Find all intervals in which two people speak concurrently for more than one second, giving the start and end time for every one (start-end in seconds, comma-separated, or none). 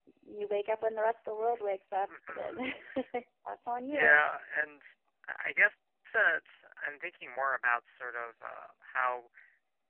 none